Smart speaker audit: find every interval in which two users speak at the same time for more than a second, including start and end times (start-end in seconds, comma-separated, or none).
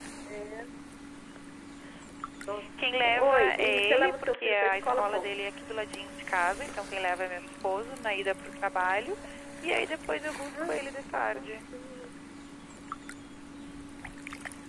2.8-5.3